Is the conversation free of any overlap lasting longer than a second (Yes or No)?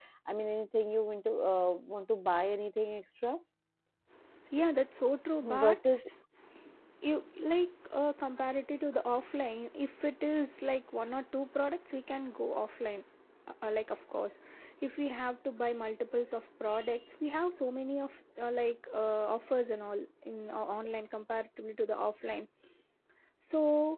Yes